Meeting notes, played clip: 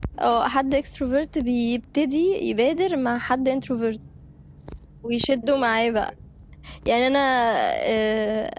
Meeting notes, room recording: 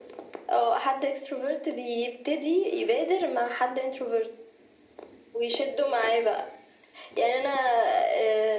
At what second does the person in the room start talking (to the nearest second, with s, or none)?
none